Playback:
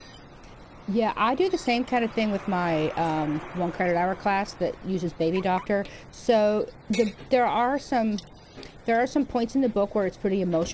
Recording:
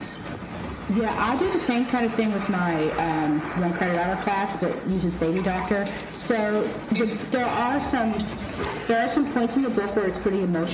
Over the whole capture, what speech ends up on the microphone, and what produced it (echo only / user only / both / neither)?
echo only